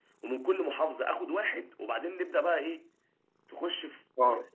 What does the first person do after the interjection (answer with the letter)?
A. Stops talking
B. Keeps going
A